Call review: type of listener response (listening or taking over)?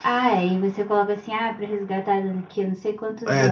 taking over